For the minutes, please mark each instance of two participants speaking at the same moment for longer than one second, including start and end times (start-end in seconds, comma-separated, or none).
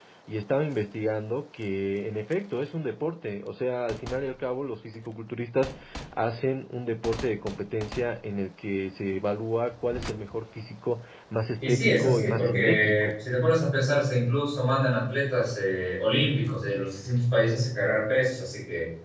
11.6-13.1